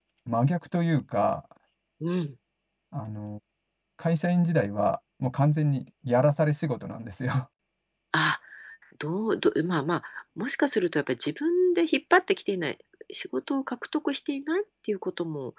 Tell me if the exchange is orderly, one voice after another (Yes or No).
Yes